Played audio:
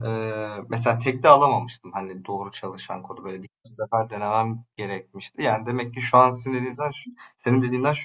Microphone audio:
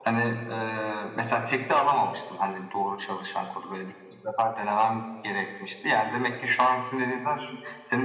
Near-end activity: none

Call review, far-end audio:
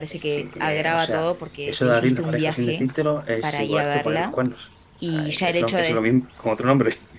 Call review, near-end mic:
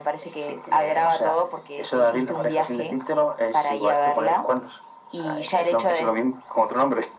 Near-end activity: none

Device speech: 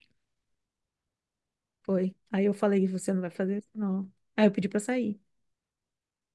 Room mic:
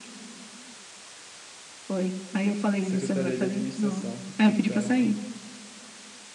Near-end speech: present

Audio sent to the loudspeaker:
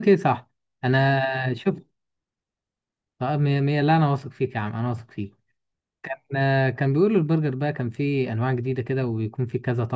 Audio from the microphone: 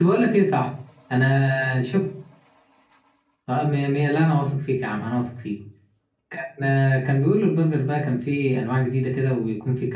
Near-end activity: none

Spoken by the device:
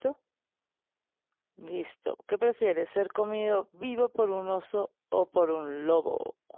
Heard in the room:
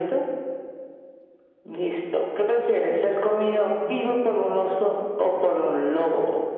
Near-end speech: none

